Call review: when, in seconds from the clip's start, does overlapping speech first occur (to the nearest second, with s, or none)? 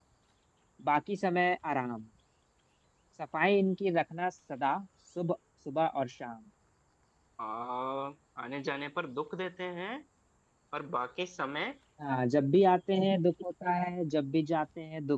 none